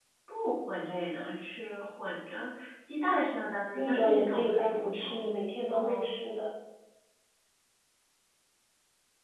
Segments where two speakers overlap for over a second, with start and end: 3.7-5.3

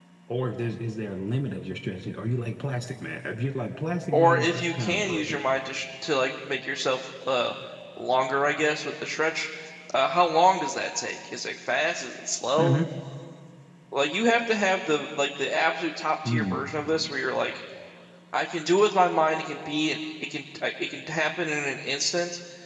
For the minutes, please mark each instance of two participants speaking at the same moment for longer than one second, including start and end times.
4.1-5.4

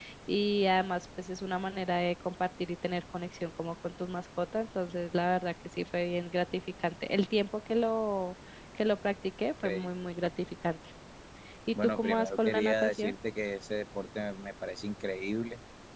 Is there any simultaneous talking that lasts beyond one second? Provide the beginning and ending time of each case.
11.8-13.1

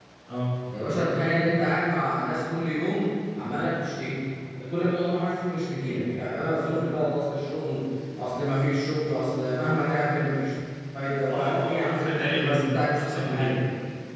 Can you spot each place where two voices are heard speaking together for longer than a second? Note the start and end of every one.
11.3-13.6

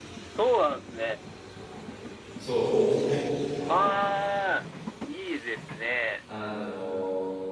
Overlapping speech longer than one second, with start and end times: none

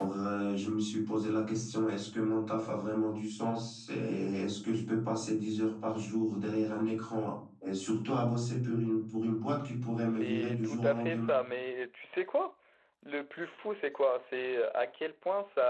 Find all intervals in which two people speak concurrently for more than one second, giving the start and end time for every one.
10.0-11.3

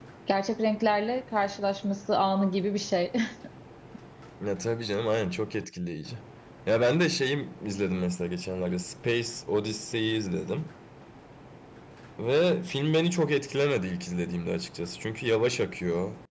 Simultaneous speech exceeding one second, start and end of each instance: none

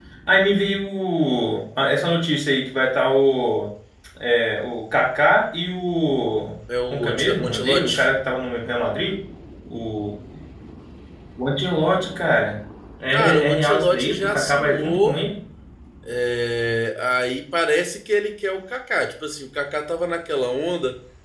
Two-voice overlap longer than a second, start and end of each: 6.9-8.1, 13.1-15.2

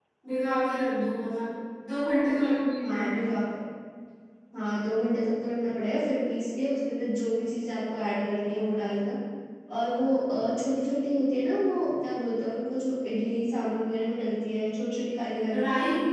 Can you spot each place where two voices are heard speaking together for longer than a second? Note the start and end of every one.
none

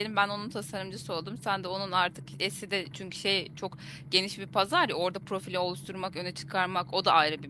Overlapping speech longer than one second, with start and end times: none

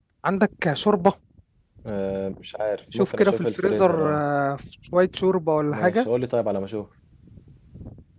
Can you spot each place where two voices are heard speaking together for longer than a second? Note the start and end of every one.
3.0-4.2

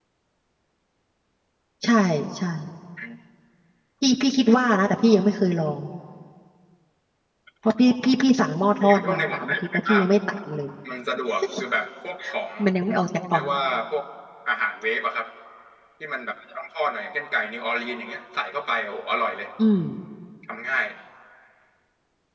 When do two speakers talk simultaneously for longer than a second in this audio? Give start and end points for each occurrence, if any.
8.8-10.0

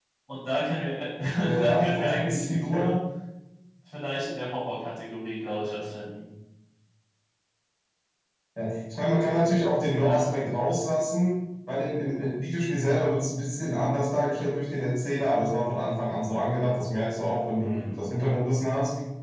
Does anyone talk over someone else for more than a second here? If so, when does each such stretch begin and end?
1.6-2.8

